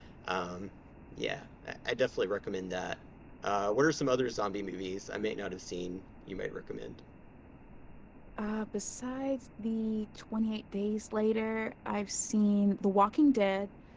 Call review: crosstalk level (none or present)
none